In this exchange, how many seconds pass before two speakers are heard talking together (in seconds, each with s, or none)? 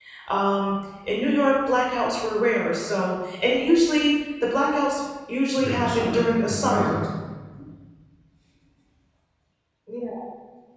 5.6 s